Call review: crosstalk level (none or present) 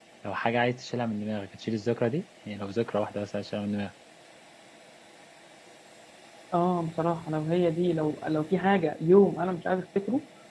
none